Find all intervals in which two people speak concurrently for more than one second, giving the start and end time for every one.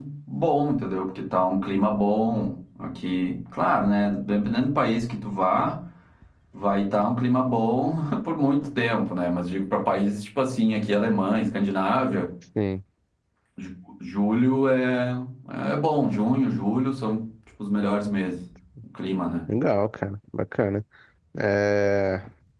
none

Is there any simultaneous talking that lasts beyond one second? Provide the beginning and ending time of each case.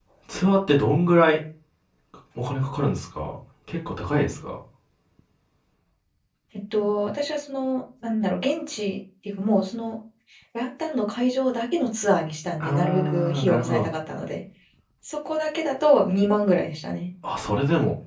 12.6-13.9

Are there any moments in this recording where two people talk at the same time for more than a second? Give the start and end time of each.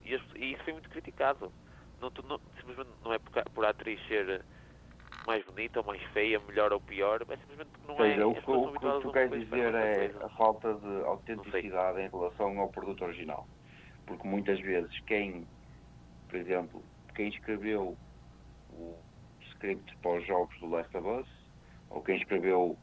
8.0-10.3

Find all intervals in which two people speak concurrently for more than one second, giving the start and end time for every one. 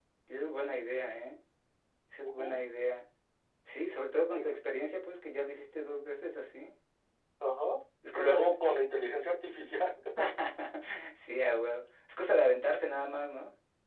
none

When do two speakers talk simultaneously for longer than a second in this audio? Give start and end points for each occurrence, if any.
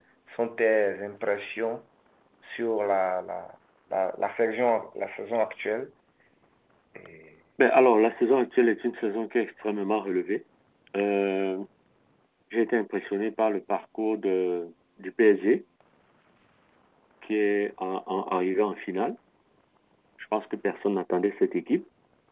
none

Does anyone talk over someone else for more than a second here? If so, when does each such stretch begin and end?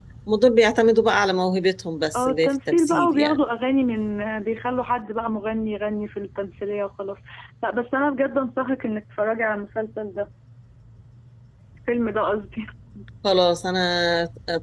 2.1-3.4

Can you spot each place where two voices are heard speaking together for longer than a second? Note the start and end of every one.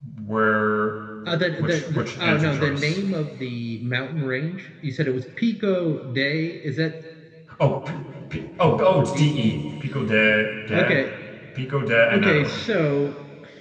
1.6-3.0

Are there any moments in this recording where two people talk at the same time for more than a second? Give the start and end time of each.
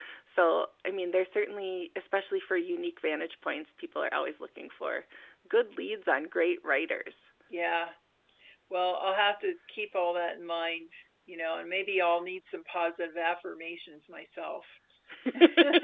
none

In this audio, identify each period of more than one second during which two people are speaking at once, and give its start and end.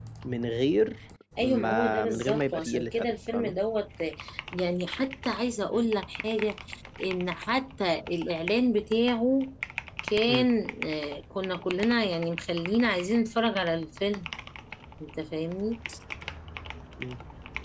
1.4-3.5

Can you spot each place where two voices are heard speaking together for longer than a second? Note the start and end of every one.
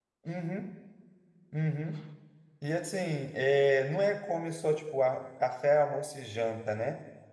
none

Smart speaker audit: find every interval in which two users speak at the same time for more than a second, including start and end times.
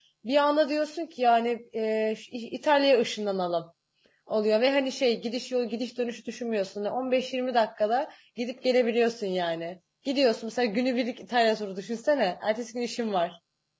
none

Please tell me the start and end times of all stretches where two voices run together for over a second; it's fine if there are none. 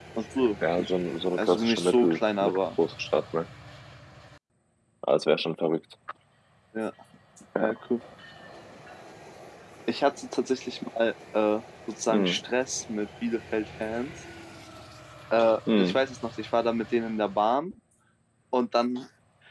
1.4-2.6

